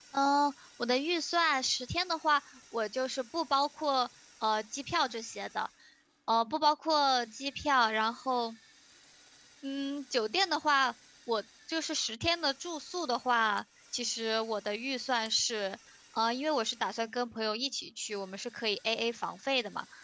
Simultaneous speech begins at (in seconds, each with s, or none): none